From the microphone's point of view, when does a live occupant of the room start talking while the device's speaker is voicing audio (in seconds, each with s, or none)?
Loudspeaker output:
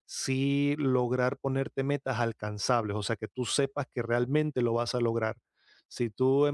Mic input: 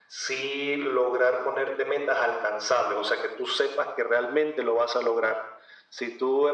none